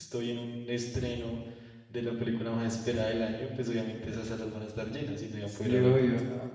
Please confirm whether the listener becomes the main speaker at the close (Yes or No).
Yes